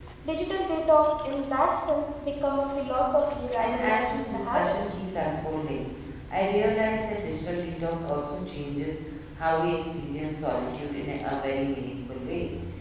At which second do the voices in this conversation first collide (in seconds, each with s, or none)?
3.5 s